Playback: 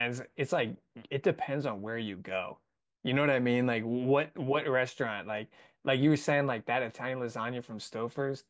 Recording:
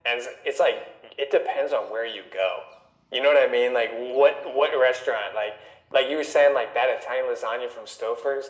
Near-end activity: none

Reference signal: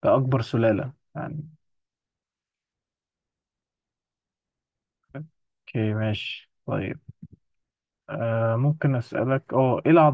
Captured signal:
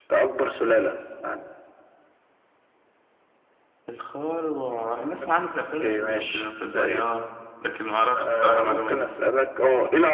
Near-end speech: present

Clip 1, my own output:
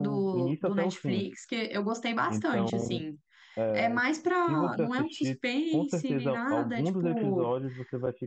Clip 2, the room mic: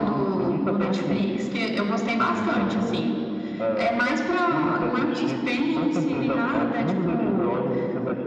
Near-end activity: none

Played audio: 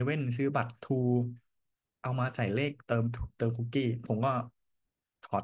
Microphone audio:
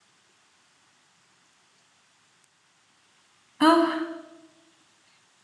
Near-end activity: present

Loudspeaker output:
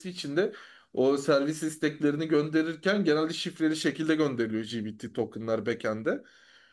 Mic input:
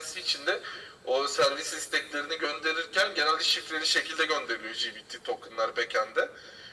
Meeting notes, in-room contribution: none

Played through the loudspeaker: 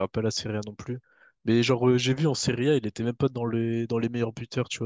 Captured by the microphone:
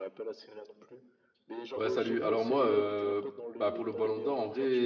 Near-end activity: present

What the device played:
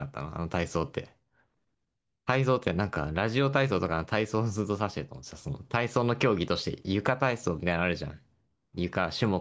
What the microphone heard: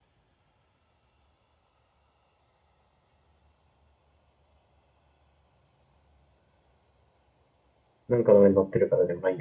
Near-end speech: present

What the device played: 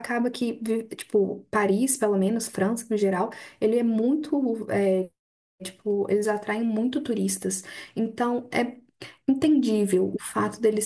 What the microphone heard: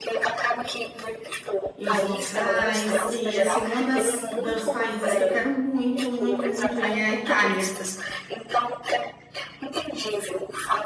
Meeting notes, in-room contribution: present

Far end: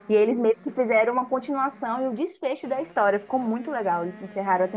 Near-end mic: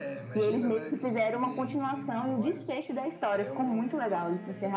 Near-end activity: present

